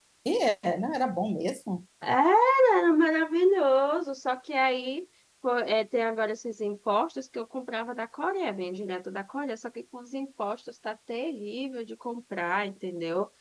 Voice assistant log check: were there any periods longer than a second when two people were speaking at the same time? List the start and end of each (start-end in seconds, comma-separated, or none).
none